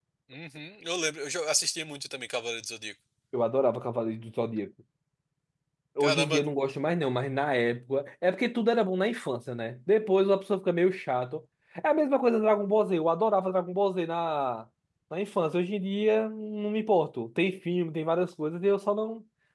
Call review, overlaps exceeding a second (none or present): none